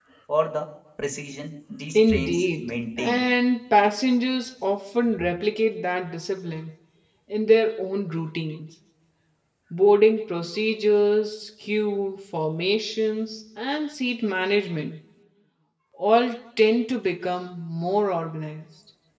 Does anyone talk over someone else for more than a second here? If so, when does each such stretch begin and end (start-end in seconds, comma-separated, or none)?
1.9-3.2